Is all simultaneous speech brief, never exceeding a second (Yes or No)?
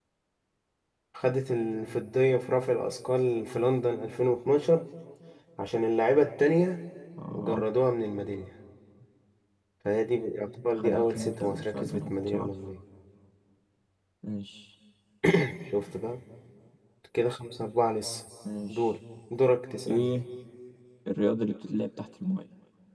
No